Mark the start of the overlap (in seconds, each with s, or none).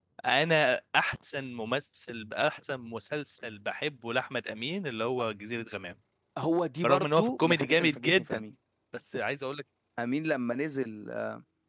6.8 s